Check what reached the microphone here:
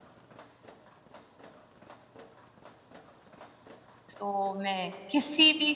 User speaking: Yes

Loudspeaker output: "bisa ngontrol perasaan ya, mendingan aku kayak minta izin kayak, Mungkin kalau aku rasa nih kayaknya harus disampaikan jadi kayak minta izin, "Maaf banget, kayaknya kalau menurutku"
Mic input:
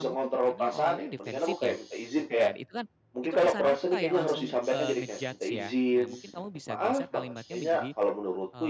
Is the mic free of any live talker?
No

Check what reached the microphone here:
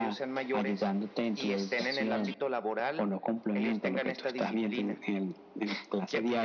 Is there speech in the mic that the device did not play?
No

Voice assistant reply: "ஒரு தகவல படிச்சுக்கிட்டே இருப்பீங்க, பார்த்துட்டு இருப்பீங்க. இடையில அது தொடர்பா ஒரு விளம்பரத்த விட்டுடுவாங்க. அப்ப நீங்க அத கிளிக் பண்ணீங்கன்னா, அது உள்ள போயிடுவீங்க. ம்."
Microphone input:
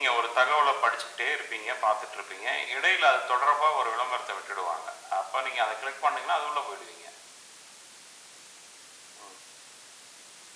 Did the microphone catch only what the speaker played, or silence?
Yes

